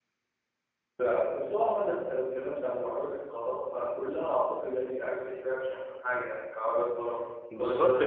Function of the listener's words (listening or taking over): taking over